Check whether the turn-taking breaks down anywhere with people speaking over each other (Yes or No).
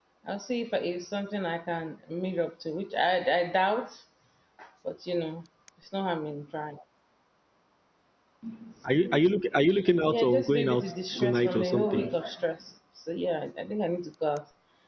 Yes